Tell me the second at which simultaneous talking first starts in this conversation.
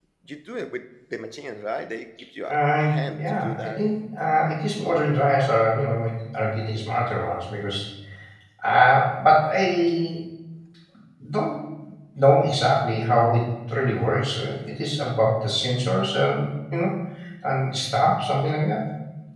2 s

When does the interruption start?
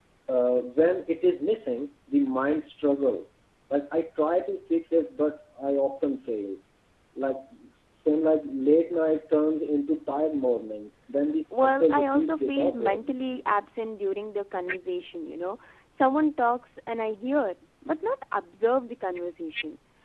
12 s

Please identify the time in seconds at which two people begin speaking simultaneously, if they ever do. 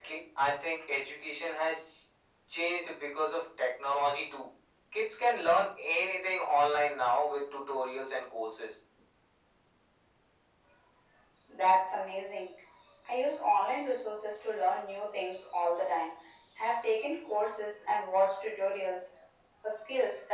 none

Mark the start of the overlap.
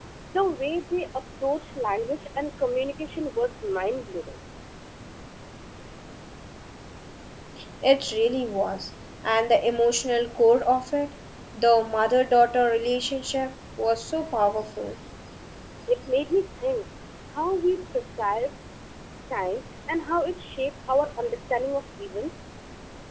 none

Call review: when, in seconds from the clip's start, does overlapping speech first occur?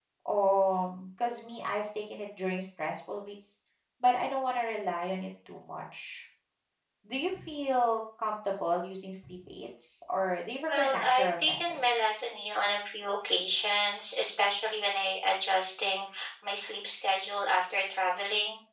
11 s

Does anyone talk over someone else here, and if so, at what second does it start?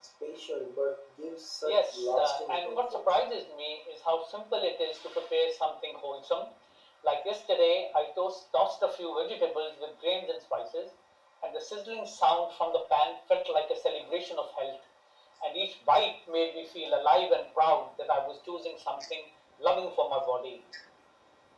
2 s

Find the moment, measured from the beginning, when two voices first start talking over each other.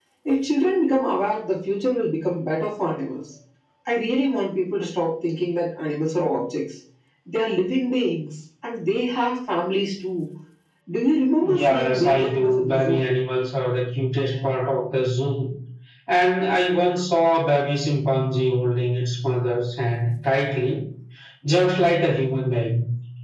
11 s

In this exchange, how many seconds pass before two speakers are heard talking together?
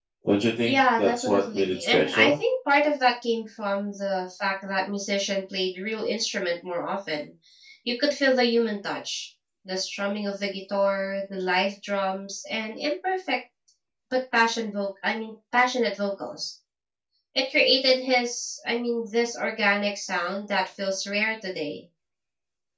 1 s

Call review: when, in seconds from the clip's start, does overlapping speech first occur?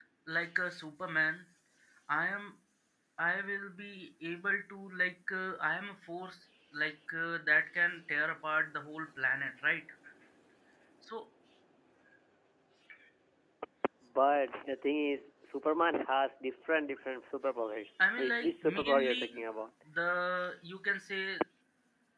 18 s

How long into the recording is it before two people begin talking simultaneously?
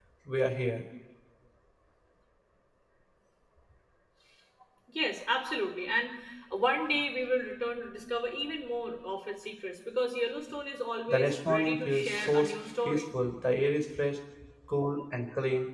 11 s

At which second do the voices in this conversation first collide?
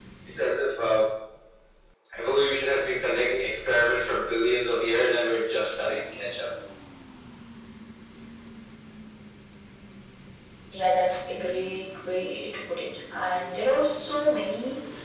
none

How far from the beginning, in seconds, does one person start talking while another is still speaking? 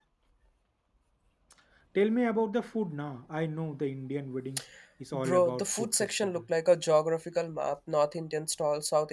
5 s

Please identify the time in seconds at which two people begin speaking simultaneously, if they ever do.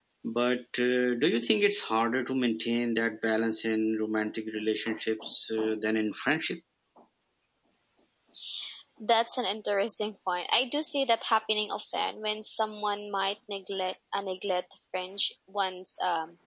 none

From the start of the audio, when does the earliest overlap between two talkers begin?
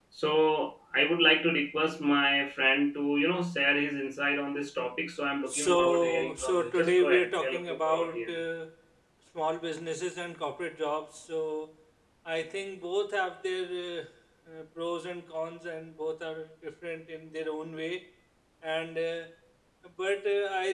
5 s

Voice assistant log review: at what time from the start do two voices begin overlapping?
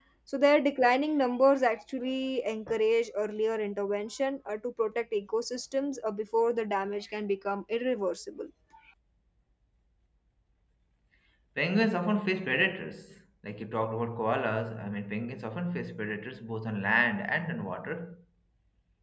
none

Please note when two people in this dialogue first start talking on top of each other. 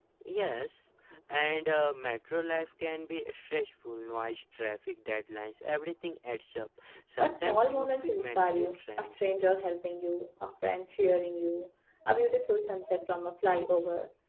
7 s

